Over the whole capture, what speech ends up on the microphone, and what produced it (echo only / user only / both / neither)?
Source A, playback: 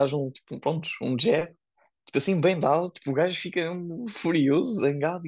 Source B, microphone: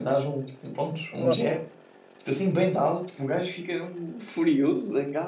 both